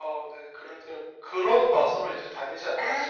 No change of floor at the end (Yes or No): No